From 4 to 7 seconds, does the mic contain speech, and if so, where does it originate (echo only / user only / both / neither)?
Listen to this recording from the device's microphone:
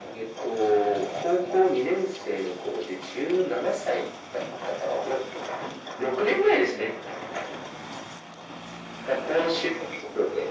echo only